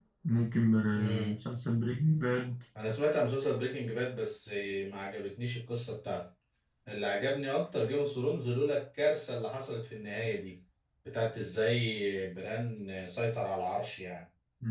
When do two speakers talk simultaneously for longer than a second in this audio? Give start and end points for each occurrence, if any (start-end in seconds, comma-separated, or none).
none